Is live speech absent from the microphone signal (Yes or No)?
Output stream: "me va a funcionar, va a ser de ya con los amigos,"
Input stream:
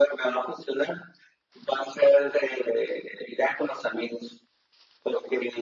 Yes